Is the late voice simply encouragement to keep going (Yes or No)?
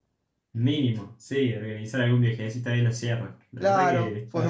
No